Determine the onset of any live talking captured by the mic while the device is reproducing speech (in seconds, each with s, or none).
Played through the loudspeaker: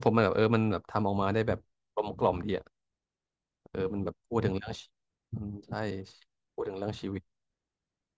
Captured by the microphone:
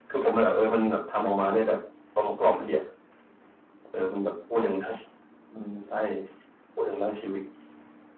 none